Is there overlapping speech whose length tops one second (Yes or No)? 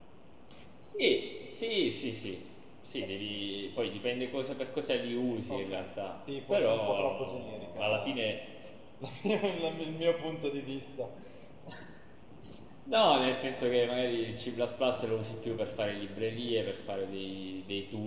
Yes